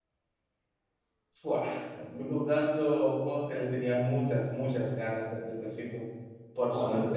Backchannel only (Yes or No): Yes